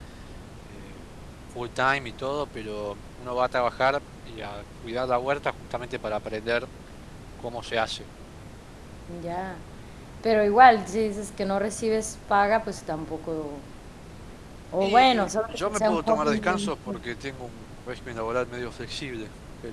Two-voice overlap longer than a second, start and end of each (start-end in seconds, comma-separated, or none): 15.5-16.7